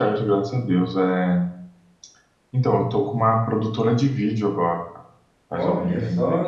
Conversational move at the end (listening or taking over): taking over